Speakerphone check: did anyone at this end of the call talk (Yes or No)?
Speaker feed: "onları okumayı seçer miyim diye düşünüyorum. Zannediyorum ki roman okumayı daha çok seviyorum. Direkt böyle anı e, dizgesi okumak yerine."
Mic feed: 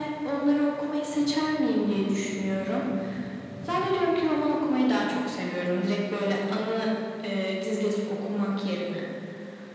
No